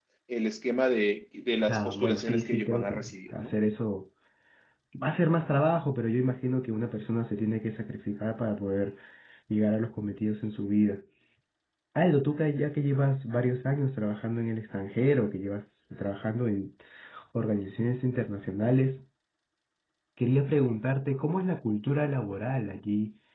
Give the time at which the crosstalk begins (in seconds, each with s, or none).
1.7 s